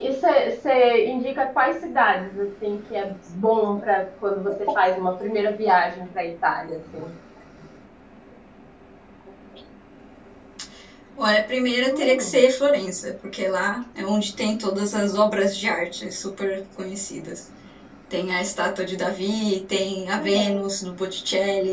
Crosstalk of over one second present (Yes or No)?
No